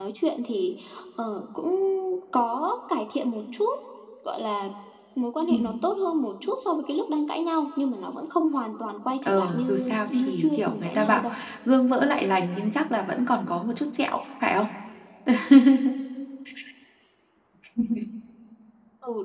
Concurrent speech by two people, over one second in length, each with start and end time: 9.2-11.2

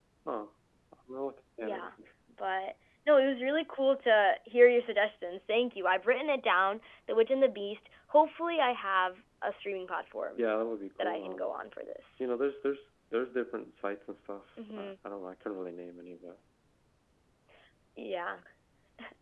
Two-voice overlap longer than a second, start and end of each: none

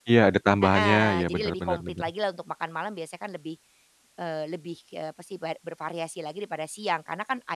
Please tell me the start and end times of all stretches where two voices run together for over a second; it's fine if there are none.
0.8-2.0

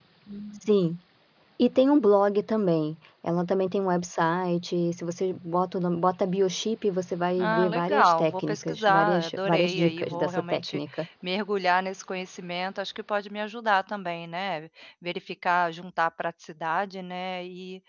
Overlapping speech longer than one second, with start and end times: 7.4-10.8

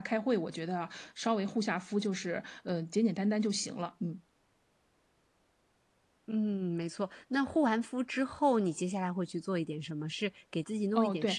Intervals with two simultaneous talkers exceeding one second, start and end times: none

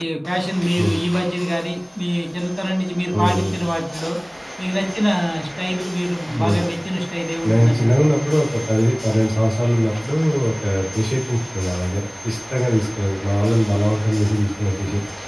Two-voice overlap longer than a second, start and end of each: none

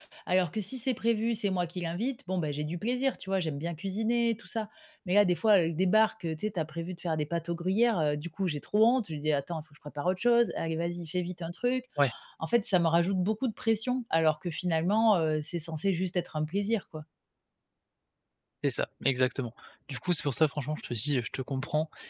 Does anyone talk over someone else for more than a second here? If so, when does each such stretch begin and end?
none

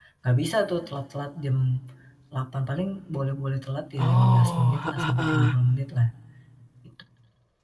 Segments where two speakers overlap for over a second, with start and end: 4.0-5.5

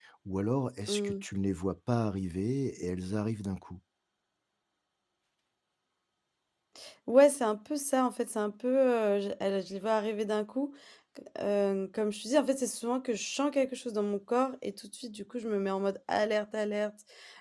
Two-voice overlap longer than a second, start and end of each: none

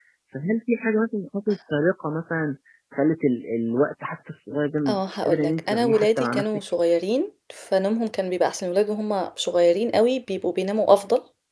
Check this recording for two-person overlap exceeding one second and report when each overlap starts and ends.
4.9-6.6

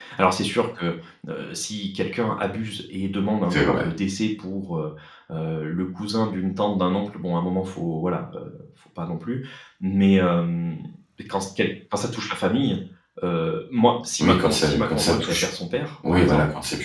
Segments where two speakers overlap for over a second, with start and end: 14.2-15.4

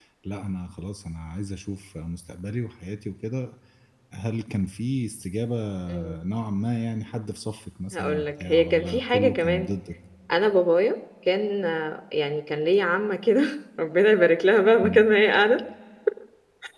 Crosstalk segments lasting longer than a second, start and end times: 7.9-9.7

